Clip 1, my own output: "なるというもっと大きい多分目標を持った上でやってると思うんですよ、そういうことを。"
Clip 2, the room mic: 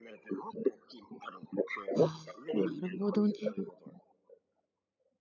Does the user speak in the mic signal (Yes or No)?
Yes